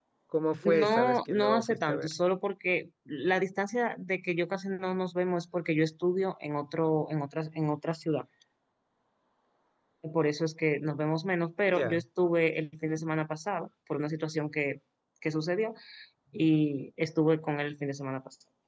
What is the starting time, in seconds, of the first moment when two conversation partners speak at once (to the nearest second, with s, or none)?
1 s